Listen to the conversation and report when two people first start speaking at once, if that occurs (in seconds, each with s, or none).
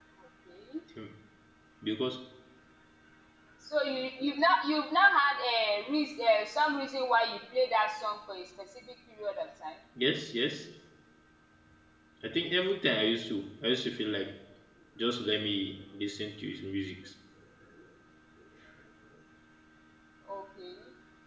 none